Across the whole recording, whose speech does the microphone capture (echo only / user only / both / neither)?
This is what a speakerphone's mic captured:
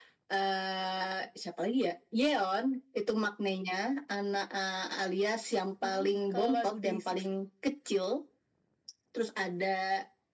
both